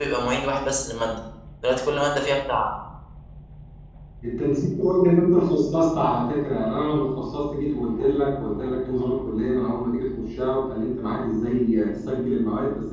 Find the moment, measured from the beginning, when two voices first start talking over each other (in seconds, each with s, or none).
none